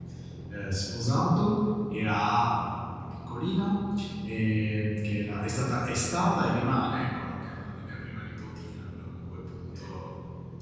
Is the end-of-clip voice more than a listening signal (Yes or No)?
No